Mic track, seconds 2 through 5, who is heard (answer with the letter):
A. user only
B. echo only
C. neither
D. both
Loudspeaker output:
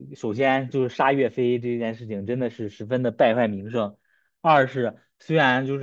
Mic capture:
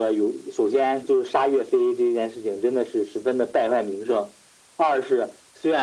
B